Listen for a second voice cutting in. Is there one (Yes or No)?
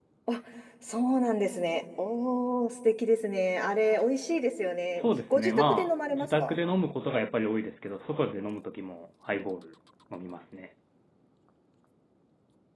Yes